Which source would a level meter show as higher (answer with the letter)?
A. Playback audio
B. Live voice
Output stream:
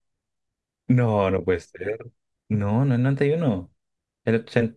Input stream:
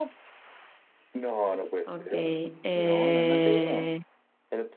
B